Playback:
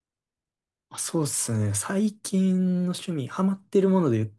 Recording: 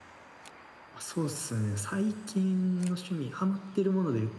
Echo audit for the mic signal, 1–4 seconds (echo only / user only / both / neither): echo only